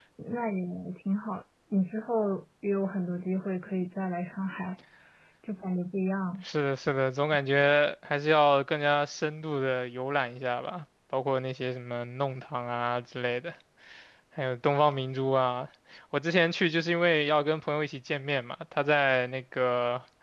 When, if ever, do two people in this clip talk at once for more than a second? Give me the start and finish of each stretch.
none

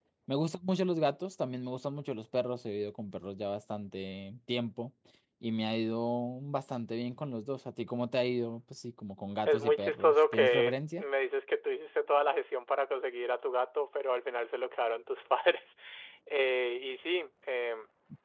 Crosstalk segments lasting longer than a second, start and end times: 9.4-11.0

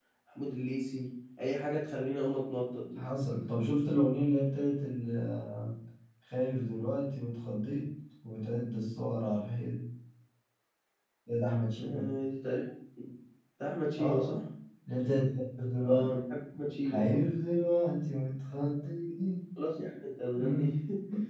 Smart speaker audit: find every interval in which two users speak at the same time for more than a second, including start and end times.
none

